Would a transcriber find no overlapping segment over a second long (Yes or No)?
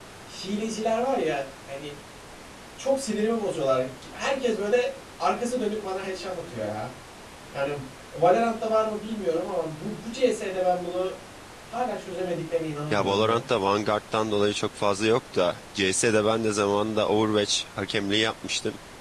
Yes